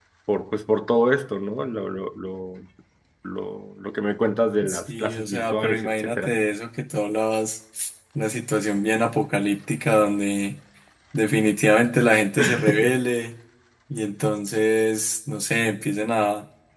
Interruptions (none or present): present